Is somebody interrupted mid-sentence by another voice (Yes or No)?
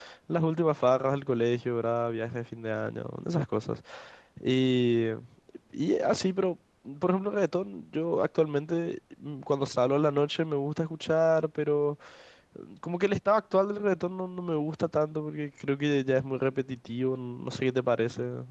No